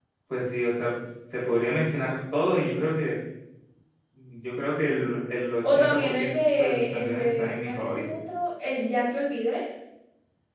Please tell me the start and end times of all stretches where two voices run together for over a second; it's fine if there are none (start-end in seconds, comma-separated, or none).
5.7-8.0